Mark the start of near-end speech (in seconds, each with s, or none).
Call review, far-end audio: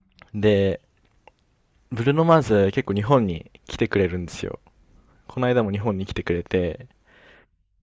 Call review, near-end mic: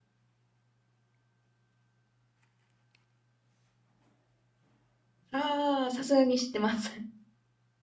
5.3 s